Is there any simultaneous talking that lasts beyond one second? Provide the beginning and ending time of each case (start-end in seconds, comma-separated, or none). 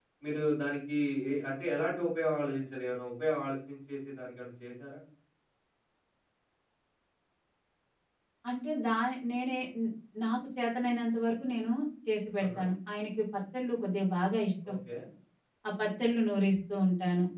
none